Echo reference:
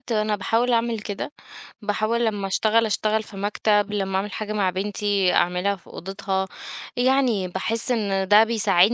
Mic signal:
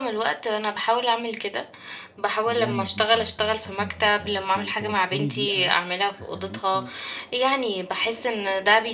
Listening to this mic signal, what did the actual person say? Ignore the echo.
زي المزيكا مثلًا، تراك مزيكا، ت توفّري بيئة تخلّيكِ

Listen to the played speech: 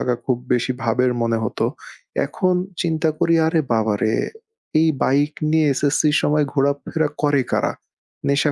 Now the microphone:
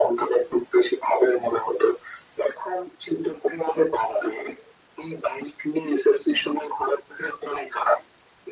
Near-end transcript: none

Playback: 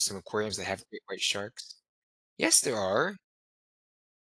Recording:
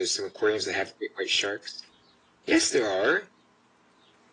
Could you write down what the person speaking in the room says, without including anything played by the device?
none

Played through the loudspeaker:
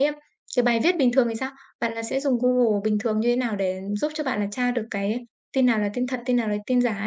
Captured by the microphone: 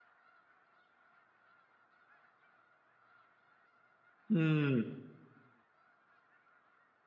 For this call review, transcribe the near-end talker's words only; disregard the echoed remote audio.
Ừm,

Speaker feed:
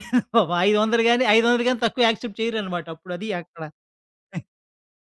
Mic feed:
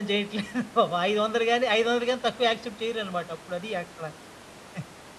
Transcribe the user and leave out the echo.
none

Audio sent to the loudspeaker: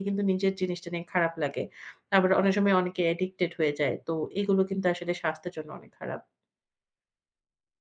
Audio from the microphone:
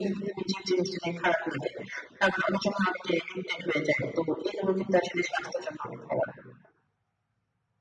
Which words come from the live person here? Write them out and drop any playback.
none

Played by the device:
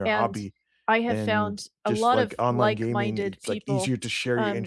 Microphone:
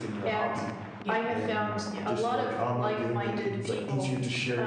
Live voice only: Yeah, yeah.

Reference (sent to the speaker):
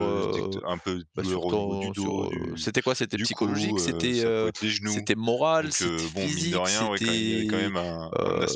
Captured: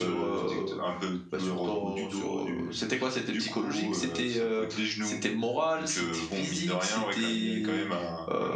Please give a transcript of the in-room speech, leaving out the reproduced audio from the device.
none

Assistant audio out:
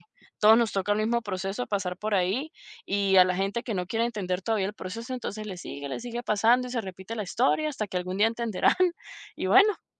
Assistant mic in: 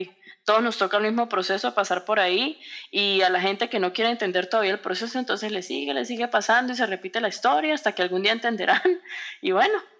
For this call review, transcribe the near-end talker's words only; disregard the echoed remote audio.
none

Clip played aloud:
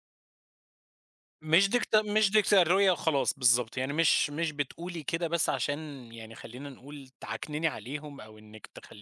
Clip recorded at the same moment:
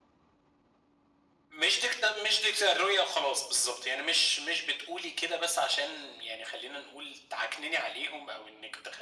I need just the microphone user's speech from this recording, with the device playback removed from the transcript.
none

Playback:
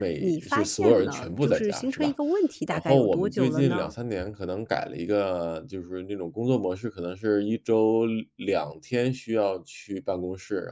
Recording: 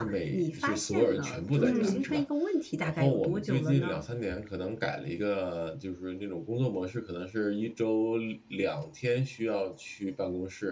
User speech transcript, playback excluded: 嗯，

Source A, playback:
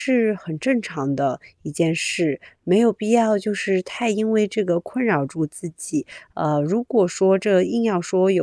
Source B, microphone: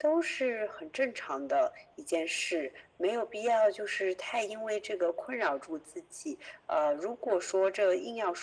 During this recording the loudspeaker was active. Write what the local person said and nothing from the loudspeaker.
none

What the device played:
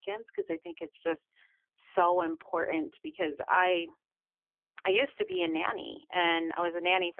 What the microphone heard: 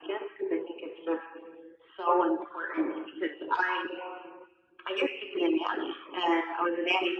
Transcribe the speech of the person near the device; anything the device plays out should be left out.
none

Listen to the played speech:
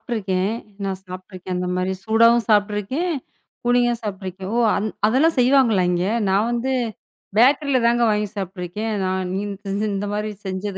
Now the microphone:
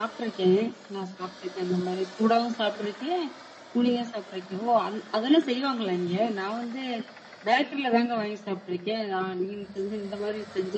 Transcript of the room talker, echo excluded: none

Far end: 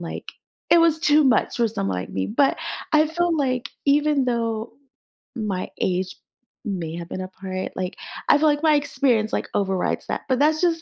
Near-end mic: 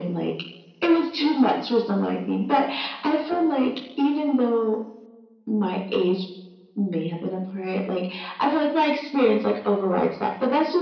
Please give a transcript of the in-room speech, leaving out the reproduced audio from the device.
none

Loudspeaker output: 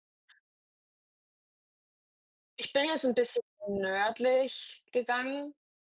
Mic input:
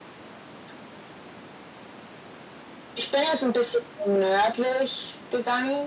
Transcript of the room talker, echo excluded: none

